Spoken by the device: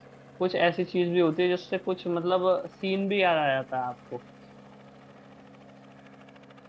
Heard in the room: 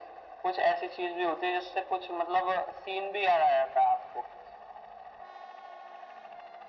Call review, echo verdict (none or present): present